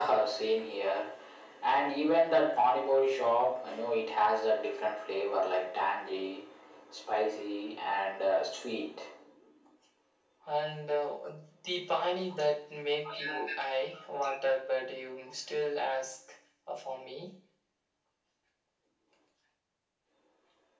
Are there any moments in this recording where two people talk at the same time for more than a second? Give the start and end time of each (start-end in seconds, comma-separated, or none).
none